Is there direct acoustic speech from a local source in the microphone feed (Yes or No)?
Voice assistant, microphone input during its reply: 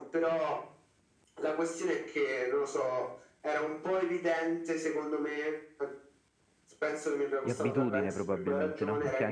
Yes